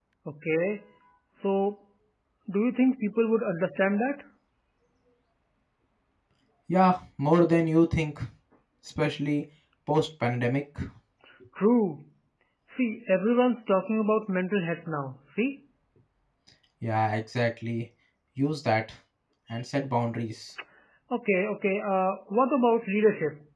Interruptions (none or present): none